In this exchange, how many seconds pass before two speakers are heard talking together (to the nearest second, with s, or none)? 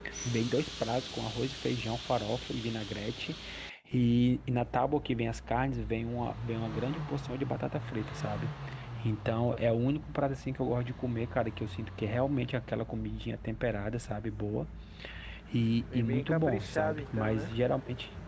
16 s